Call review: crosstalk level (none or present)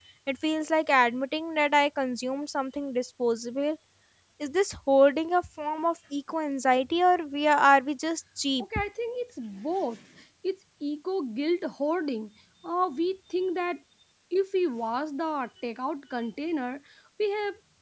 none